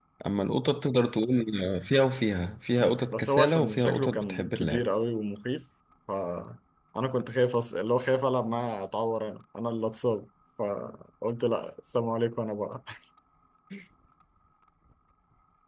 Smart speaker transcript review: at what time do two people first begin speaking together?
2.8 s

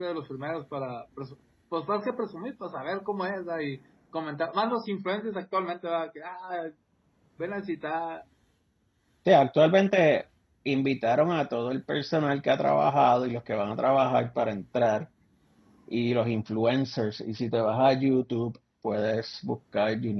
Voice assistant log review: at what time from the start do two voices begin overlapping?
none

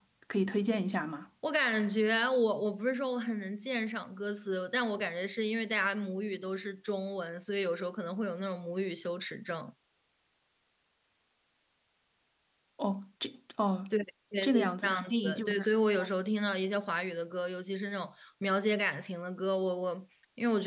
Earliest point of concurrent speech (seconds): 14.4 s

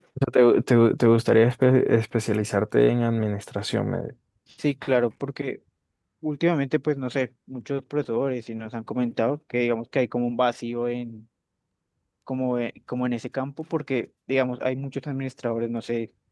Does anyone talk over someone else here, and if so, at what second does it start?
none

